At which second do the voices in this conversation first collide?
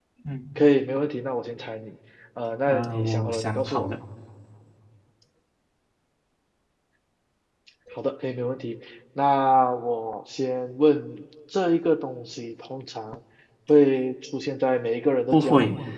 2.7 s

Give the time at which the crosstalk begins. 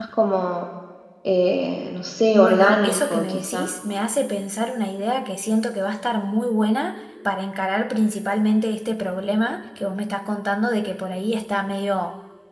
2.3 s

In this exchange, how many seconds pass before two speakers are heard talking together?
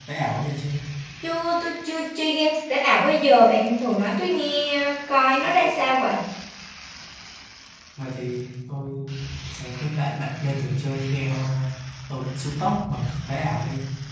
none

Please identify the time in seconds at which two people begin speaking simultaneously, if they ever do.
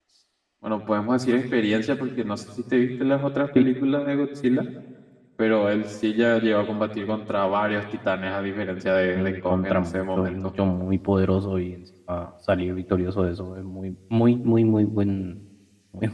9.2 s

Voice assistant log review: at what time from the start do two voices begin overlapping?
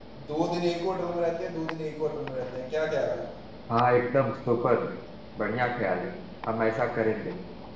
none

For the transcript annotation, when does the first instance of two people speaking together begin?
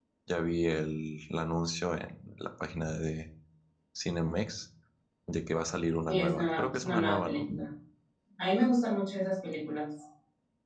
6.1 s

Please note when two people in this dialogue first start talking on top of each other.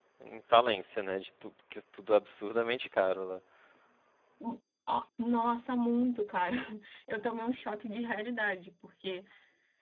none

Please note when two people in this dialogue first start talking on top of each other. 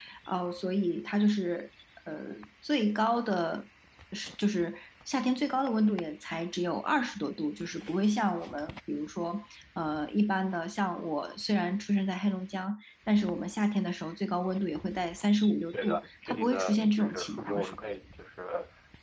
15.7 s

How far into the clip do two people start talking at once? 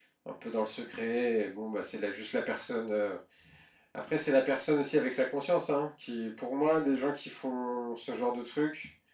none

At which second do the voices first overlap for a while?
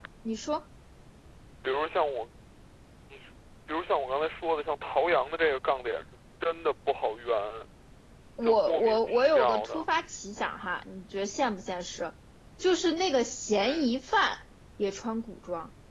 8.4 s

